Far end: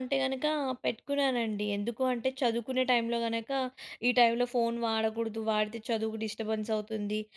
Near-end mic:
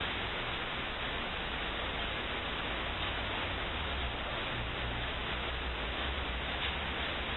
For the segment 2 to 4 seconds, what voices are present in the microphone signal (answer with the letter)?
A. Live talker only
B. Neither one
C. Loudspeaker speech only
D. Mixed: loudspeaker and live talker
B